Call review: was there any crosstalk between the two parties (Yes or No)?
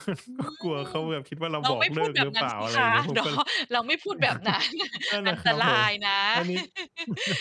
Yes